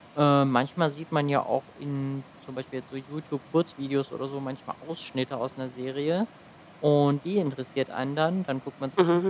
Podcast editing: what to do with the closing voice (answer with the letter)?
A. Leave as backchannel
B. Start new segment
A